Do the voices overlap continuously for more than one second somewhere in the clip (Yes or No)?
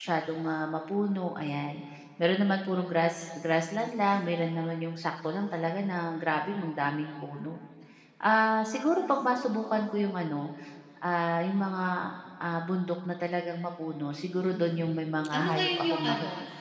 Yes